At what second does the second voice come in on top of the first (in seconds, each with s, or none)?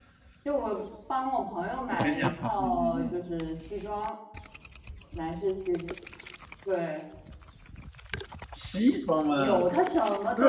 1.9 s